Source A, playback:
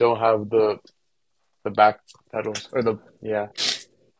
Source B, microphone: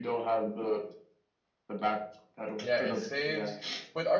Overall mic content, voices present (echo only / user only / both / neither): both